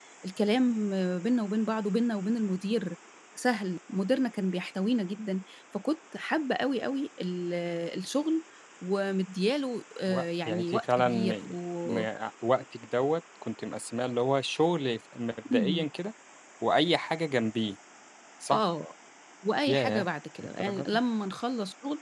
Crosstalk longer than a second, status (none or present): present